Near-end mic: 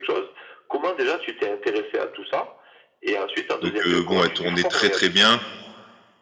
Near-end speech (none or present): present